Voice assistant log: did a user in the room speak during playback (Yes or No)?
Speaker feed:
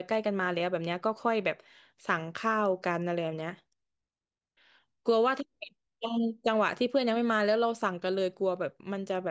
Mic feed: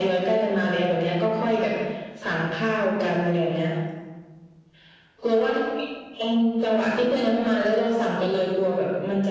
No